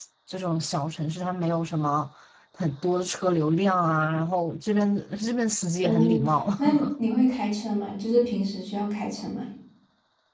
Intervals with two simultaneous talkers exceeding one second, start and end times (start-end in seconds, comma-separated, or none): none